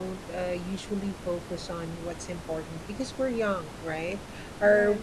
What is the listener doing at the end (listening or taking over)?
listening